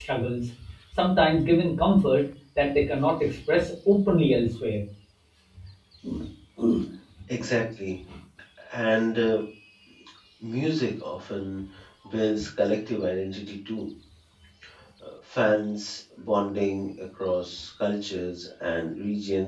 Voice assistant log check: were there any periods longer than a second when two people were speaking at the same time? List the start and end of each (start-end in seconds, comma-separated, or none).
none